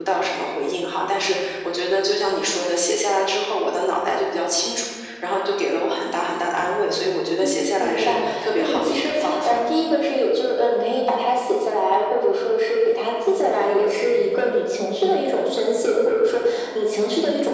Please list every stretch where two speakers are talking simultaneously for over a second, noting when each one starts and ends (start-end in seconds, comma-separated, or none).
7.4-9.6